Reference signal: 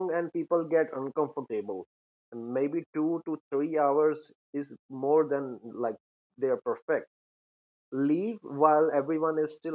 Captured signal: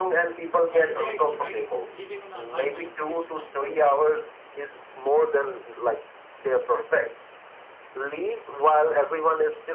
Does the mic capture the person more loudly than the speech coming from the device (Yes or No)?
No